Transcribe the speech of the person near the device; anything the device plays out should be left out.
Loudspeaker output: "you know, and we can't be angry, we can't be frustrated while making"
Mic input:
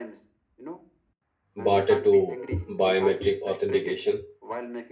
barter to biometric authentication,

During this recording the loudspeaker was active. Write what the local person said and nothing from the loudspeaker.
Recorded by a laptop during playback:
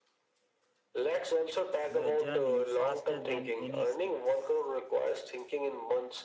your journey faster than any skill

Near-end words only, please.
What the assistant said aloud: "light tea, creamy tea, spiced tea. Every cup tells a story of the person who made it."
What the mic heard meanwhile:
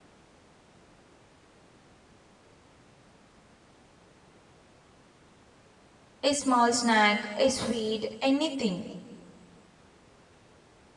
A small snack, a sweet, anything.

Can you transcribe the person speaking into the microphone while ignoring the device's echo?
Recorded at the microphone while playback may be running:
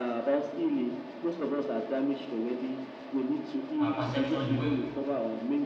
my perception, the way

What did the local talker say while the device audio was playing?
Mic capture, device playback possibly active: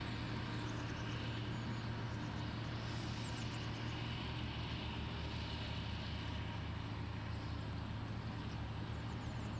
none

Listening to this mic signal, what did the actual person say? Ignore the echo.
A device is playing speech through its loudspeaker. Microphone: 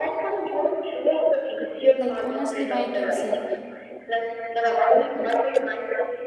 Like honestly, I can say,

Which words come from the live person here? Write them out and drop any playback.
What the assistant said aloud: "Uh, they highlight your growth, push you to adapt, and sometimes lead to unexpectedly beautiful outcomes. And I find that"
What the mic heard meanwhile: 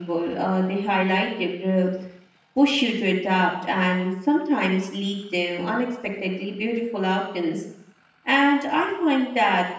none

